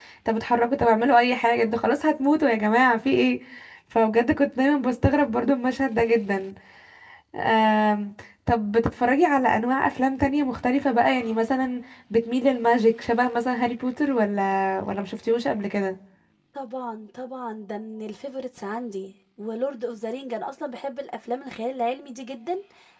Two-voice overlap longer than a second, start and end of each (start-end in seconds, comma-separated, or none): none